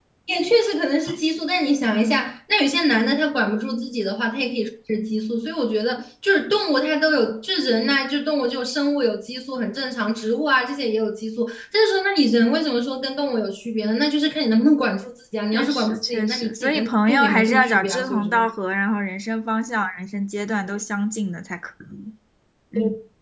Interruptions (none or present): present